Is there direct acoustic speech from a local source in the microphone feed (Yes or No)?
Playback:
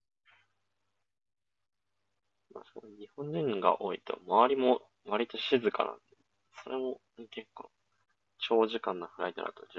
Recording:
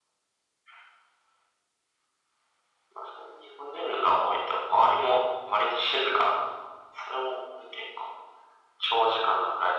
No